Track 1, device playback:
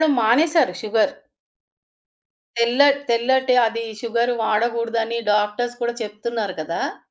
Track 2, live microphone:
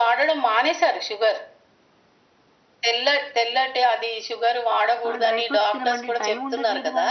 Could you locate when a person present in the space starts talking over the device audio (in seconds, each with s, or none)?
5.1 s